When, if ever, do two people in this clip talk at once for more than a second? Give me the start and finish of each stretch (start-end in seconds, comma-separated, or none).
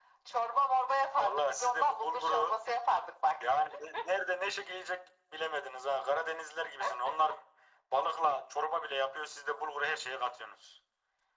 1.2-2.6